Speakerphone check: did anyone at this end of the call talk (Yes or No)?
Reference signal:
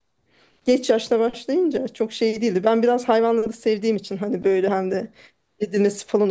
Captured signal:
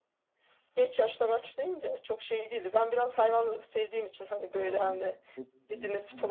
Yes